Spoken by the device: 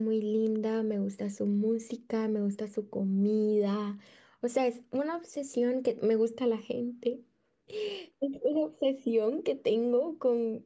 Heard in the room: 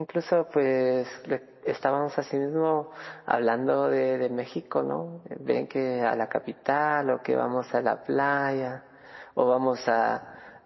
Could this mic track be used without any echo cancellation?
Yes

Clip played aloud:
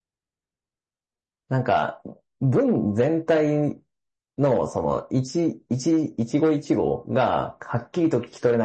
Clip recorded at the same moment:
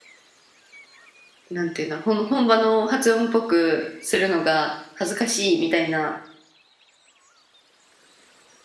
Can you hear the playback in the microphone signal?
No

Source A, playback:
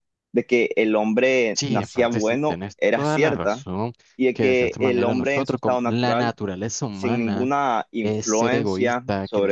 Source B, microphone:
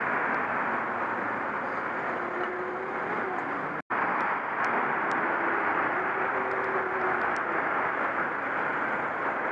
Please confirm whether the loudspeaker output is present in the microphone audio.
No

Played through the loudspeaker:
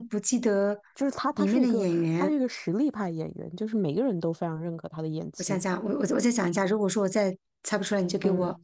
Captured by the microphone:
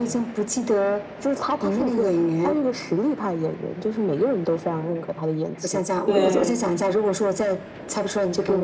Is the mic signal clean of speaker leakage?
No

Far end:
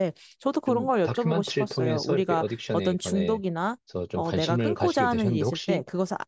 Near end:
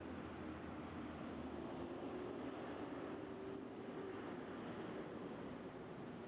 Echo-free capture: Yes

